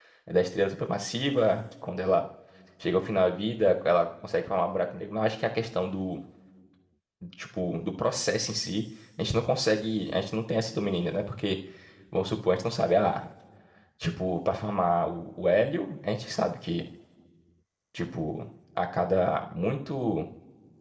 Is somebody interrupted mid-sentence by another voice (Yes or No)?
No